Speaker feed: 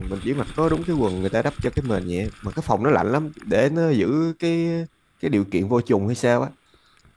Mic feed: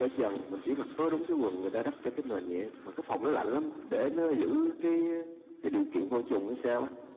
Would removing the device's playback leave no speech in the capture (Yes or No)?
Yes